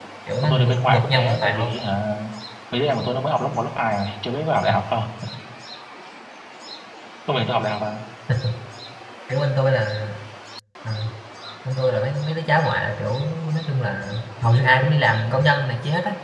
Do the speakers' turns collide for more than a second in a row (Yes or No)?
Yes